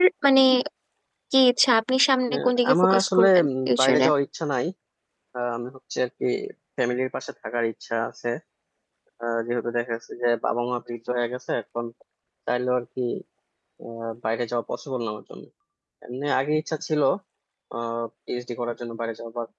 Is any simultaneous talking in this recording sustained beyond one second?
Yes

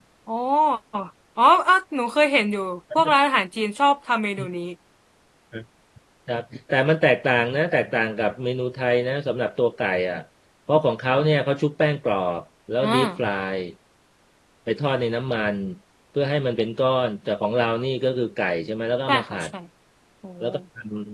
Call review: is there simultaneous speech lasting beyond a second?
No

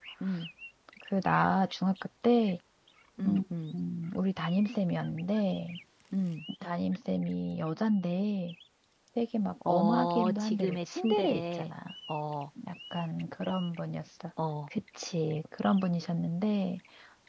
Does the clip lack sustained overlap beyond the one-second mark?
No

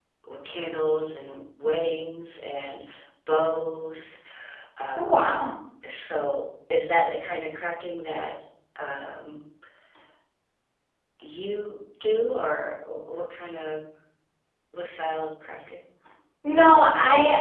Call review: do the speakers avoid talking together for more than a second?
Yes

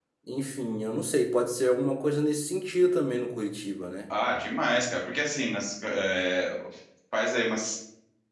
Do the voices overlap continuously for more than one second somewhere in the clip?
No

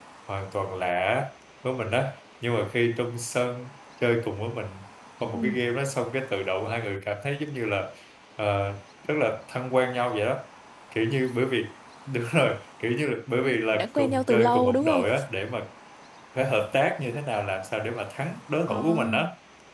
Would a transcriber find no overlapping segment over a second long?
No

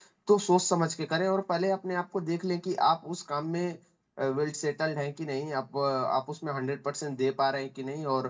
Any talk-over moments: No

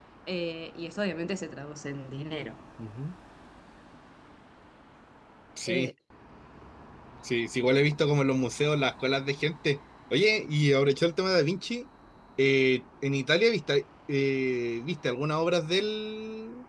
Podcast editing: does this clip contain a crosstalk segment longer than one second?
No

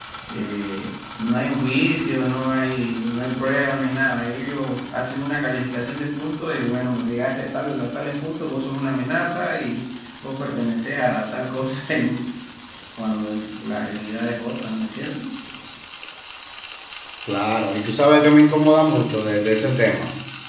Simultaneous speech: No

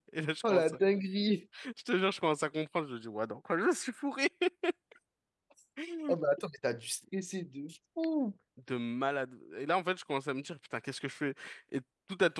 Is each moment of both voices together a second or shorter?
Yes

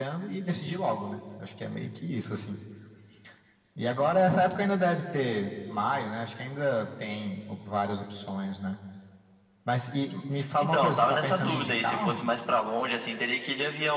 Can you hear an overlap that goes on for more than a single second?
Yes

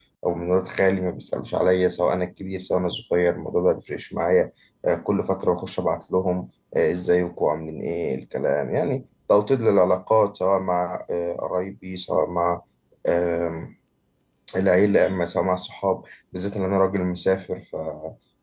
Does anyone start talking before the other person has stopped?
No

